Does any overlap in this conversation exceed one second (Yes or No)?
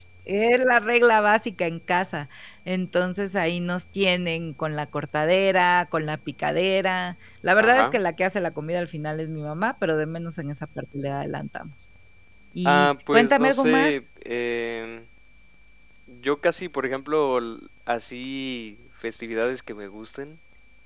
Yes